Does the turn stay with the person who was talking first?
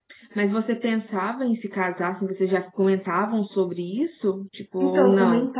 No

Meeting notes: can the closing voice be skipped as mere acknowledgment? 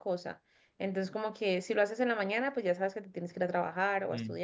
Yes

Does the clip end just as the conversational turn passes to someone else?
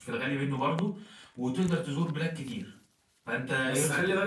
Yes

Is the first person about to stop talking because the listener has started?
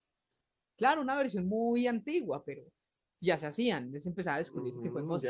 Yes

